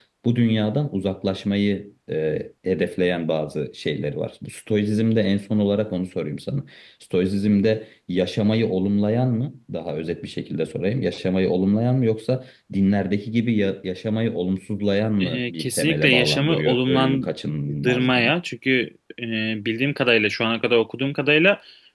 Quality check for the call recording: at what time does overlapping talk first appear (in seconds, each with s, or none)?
15.2 s